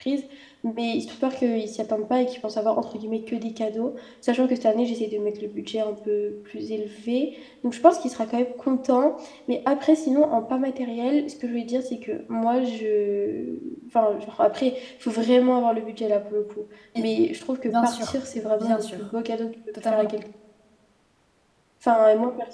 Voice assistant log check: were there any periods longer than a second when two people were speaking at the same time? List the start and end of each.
17.7-19.1

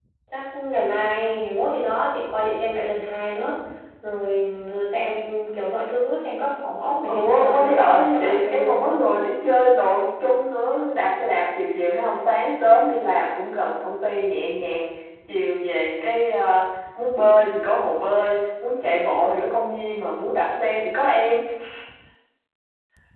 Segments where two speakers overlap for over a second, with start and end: 7.1-9.0

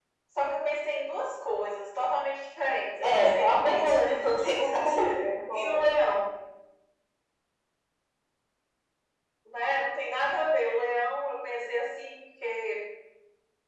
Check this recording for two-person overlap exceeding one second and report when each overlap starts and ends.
3.0-4.2

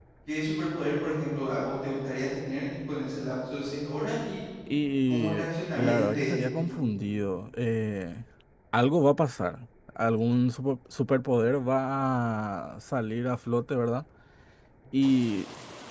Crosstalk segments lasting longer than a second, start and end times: 5.1-6.5

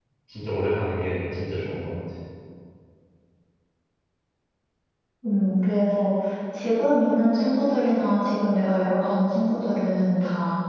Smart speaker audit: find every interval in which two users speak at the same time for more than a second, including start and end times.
none

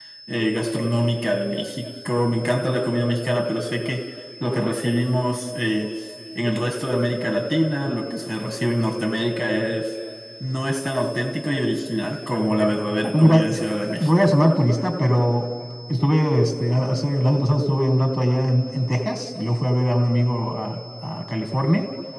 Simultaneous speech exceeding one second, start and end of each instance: none

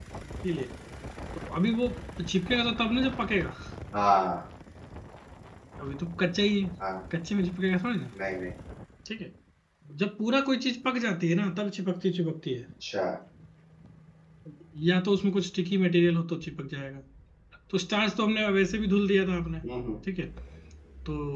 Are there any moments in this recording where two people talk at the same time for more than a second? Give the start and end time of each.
none

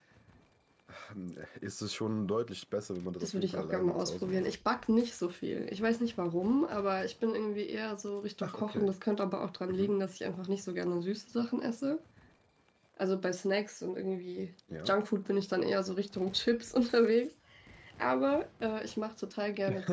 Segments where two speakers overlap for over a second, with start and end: 3.2-4.5

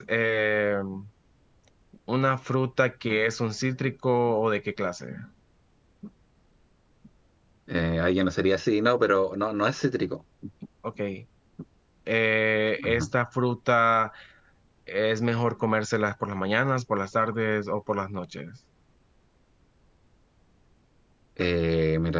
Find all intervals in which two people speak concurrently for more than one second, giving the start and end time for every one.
none

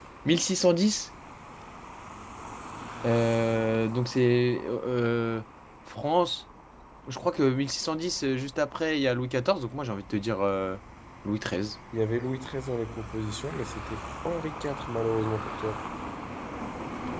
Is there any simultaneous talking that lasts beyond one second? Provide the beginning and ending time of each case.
none

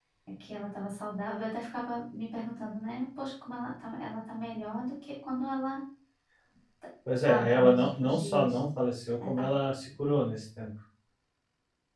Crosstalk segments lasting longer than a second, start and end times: 7.2-8.6

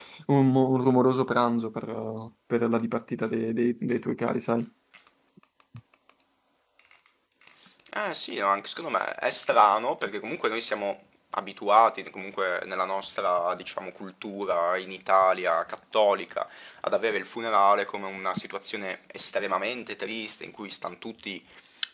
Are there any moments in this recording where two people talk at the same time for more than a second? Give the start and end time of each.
none

